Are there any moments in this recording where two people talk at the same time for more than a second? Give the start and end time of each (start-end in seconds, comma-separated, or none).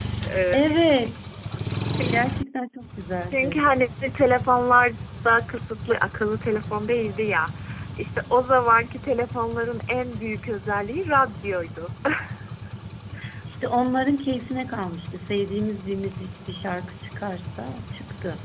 none